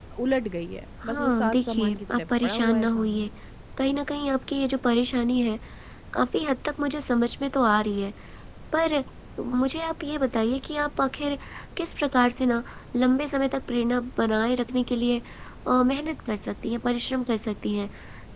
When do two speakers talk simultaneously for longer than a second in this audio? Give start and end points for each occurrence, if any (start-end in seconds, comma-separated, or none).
1.0-3.3